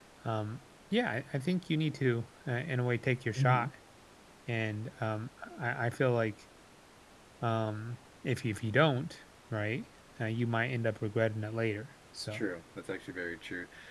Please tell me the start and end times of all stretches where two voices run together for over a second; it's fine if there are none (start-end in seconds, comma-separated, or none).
none